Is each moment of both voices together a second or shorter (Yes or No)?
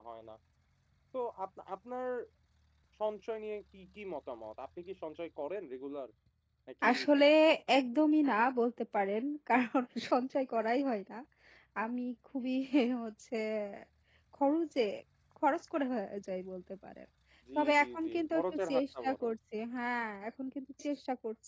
No